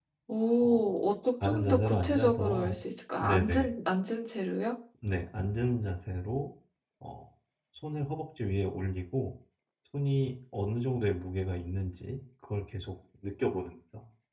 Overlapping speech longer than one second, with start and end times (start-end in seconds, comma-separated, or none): 1.4-2.8